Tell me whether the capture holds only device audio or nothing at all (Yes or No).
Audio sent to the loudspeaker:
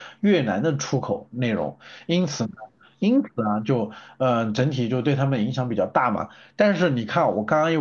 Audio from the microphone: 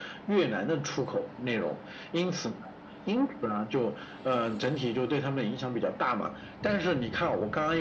Yes